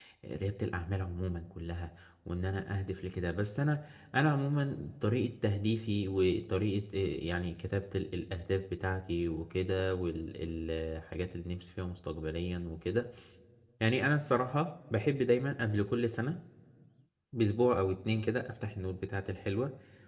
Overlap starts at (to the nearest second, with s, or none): none